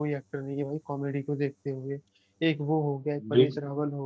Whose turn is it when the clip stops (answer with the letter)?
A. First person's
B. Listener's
A